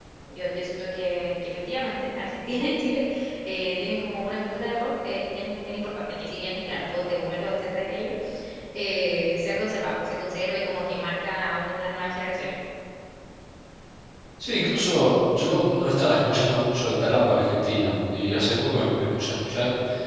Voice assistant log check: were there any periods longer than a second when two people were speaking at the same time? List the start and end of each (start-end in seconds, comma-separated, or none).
none